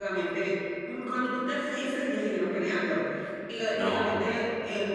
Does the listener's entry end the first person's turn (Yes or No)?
No